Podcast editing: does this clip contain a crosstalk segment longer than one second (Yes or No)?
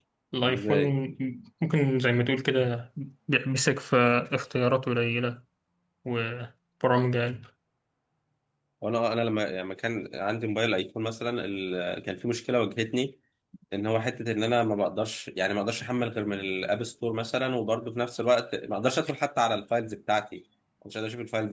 No